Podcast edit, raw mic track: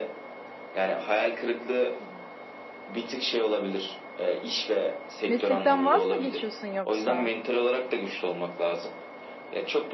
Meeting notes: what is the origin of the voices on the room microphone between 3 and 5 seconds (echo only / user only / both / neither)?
echo only